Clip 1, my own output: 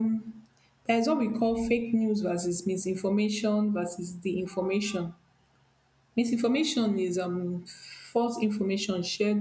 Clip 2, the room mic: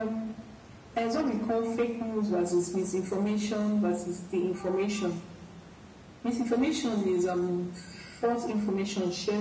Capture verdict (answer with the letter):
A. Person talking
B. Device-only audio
B